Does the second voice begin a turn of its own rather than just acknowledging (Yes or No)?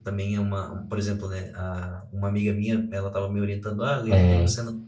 No